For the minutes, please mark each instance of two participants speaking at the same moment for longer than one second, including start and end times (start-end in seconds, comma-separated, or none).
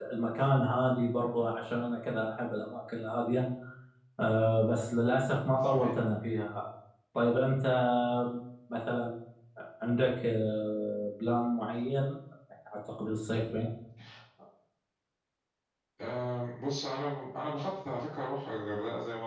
none